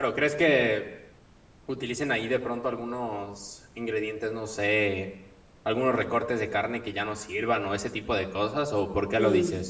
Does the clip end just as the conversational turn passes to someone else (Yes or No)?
Yes